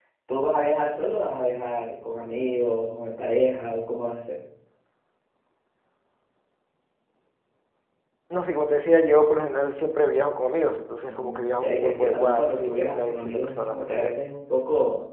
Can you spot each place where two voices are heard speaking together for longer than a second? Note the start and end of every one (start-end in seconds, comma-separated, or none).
11.0-14.2